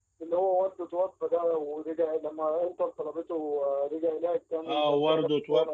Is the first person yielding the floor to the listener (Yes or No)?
Yes